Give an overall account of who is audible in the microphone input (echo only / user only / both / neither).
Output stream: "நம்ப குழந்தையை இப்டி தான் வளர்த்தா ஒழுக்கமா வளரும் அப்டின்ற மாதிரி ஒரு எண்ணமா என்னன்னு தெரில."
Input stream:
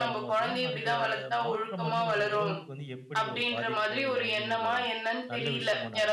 both